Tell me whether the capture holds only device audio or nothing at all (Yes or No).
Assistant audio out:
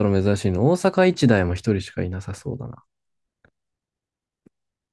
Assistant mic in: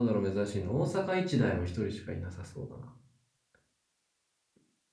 Yes